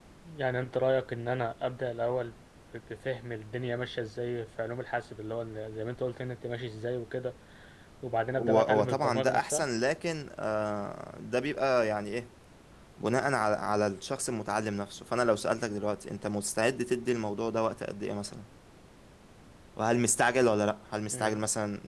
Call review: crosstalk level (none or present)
present